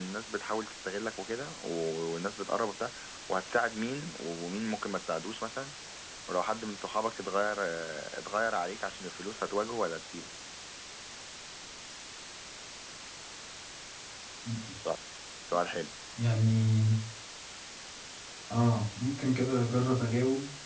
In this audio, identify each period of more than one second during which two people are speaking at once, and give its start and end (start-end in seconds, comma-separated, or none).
none